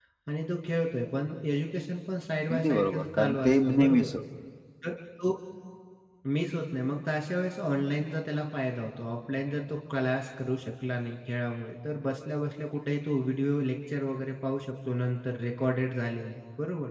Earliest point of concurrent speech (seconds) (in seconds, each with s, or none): 2.5 s